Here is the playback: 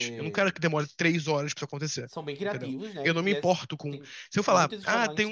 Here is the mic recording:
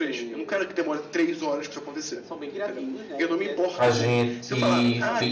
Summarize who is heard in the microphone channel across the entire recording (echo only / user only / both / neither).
both